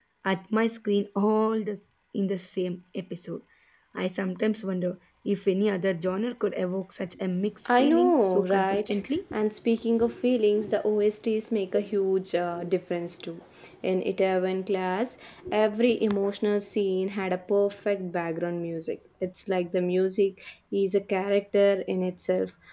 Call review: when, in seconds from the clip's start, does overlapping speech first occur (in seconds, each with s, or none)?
7.6 s